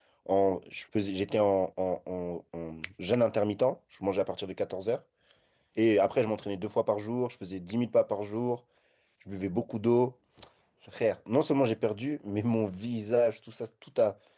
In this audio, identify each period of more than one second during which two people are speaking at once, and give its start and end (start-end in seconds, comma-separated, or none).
none